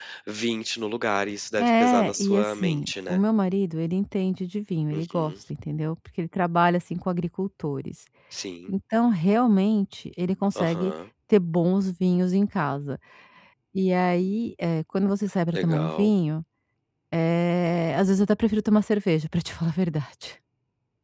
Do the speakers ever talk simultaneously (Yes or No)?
Yes